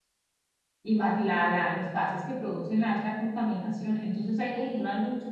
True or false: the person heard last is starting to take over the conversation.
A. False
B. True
A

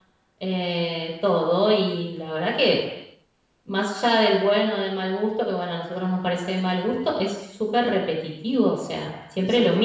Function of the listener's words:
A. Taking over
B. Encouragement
A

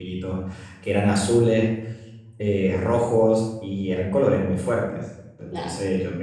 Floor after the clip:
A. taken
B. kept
B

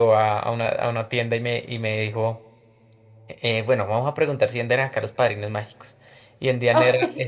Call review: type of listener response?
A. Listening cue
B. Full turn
A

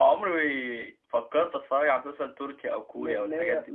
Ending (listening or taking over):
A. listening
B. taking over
B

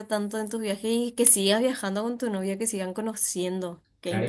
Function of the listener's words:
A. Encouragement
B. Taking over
B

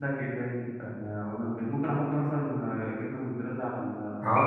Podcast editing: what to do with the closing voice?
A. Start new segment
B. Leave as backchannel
A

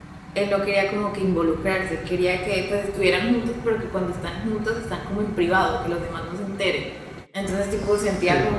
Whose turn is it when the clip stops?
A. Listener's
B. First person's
B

